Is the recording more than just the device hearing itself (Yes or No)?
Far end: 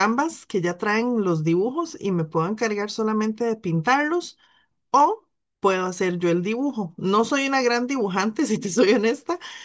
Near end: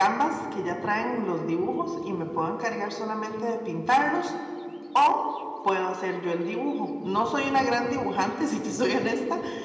No